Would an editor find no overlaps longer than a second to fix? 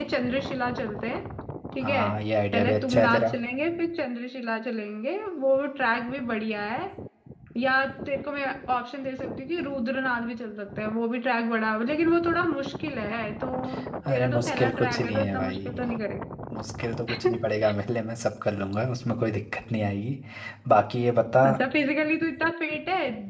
No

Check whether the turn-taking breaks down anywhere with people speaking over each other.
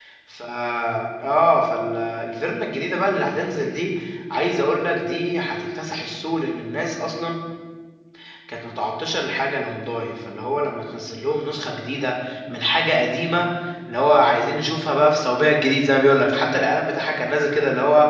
No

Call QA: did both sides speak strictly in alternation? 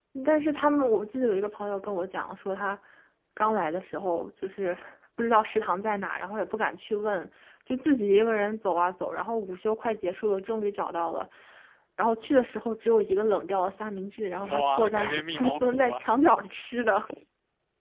No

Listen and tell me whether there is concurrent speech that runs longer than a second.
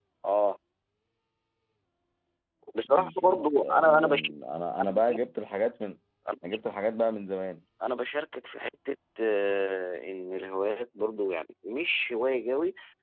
Yes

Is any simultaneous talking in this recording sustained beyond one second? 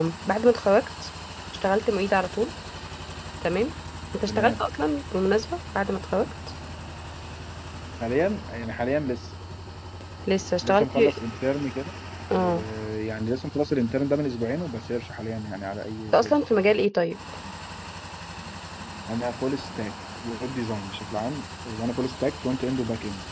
No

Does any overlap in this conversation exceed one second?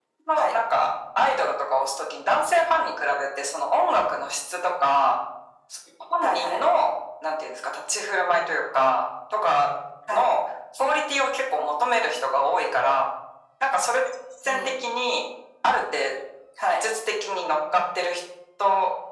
No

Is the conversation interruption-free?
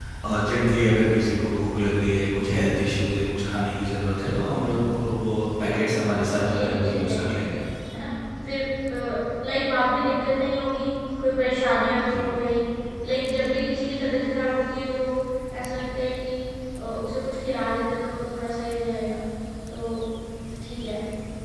No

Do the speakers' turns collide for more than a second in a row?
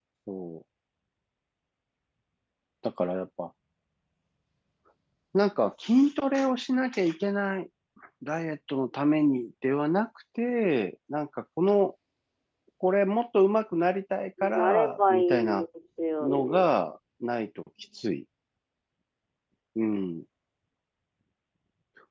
Yes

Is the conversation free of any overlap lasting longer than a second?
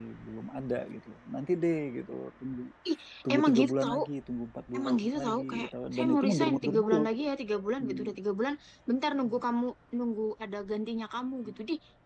No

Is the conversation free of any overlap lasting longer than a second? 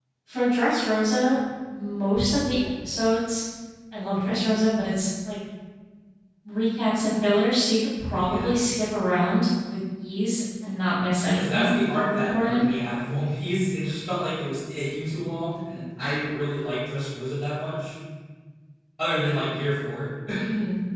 No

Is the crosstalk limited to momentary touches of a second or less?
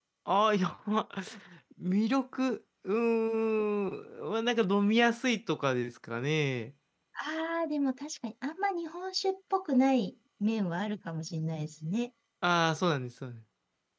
Yes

